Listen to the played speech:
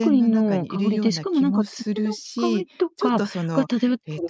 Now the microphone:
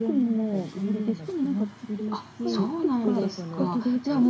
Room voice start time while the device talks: 2.1 s

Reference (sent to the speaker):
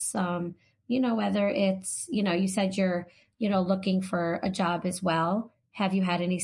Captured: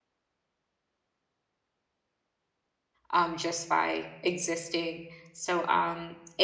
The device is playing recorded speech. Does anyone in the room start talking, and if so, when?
3.1 s

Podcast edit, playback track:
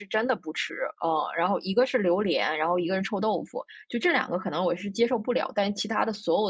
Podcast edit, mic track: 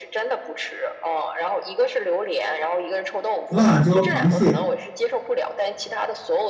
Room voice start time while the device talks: 3.5 s

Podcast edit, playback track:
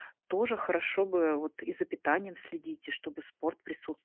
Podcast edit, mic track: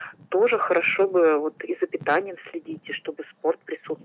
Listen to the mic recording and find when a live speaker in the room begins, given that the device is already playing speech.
none

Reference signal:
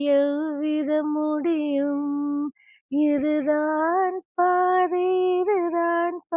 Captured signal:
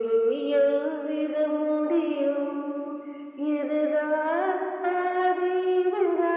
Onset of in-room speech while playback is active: none

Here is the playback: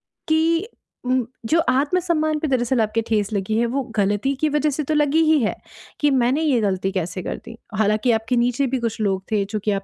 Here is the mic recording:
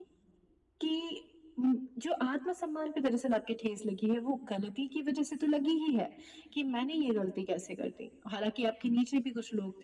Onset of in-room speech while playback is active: none

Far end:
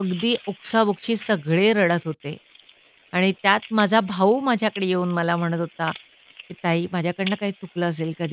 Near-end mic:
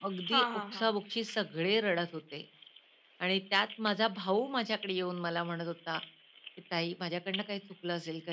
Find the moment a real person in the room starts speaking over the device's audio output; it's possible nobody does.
0.3 s

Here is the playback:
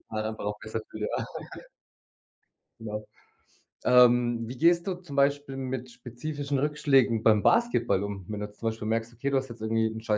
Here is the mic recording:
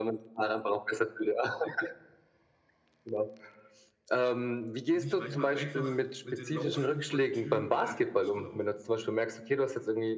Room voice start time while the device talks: 4.9 s

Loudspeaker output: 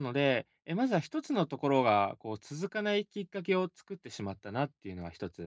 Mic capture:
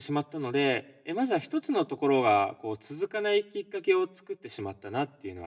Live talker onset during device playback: none

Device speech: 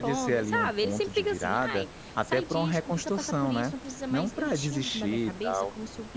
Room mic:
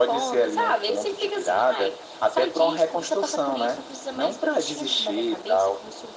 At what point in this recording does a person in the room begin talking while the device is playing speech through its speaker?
none

